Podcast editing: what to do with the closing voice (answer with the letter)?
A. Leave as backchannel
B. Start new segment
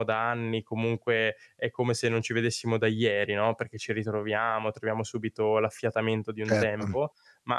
A